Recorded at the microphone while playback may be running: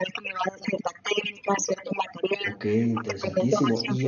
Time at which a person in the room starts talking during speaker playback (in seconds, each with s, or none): 2.4 s